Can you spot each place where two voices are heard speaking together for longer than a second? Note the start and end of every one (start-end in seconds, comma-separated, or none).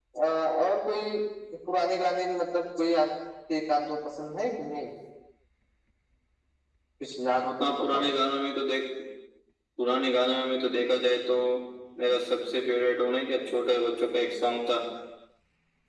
none